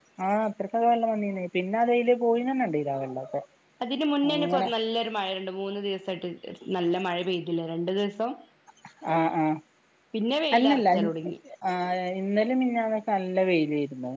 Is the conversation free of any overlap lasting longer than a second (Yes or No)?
Yes